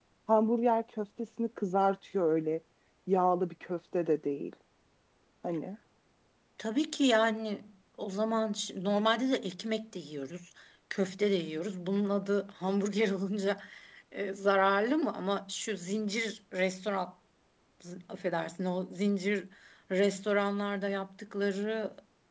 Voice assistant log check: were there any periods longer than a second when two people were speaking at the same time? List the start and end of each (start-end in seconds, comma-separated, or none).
none